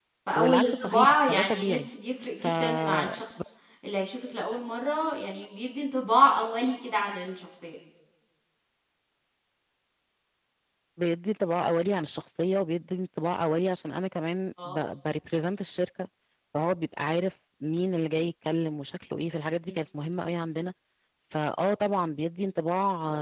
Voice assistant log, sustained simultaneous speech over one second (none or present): present